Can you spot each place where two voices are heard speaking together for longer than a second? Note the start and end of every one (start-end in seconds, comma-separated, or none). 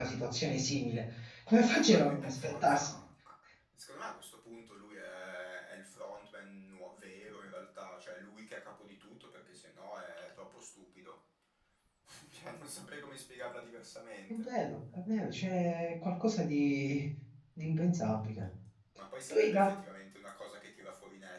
1.7-2.9